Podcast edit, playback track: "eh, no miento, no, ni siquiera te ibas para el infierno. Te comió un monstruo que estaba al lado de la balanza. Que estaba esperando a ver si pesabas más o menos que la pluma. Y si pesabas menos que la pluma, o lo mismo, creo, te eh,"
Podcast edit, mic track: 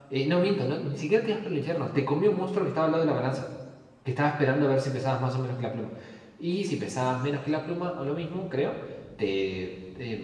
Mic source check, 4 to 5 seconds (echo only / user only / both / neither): echo only